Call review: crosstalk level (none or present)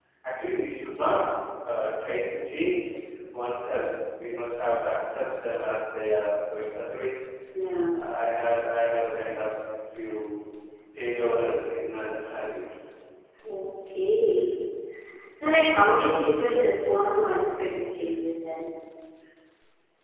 none